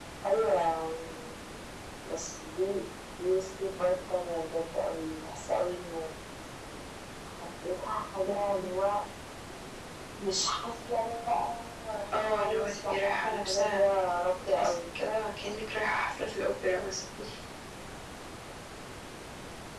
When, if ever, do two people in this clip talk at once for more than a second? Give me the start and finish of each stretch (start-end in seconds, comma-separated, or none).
12.1-13.8